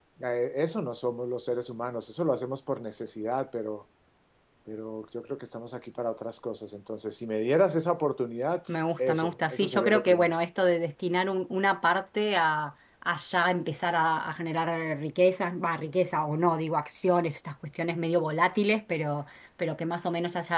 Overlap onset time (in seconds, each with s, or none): 8.7 s